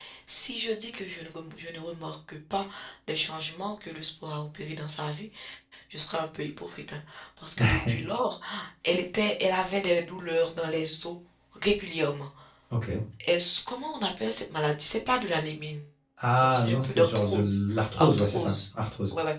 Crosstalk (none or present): present